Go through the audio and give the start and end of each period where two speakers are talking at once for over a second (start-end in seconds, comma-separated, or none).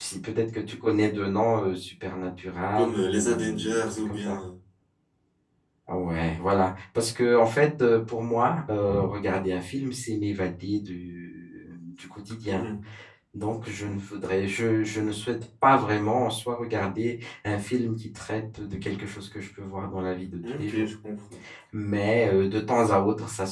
2.8-4.4